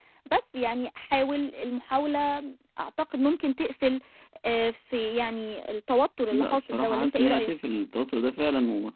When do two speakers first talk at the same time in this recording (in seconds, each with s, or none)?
6.3 s